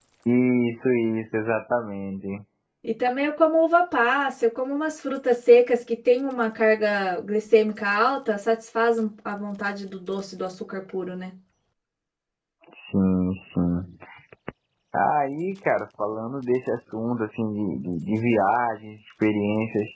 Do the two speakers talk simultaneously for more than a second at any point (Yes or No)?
No